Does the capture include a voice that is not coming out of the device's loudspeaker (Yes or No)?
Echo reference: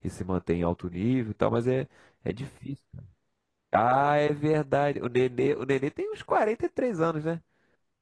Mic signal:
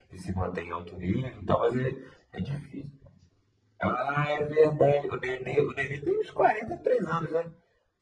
No